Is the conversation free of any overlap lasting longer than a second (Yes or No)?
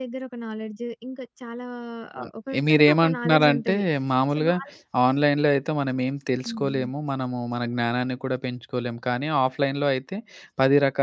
No